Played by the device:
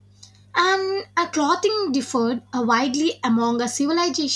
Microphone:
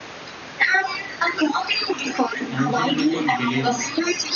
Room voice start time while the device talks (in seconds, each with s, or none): 2.5 s